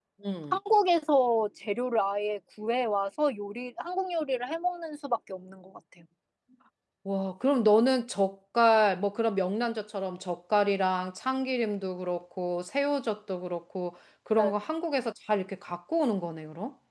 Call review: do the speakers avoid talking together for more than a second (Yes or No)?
Yes